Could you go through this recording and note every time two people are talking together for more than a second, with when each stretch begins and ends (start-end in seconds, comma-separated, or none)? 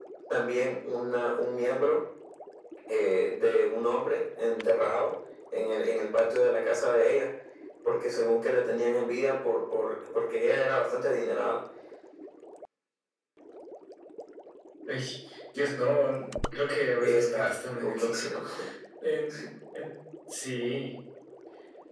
17.0-18.4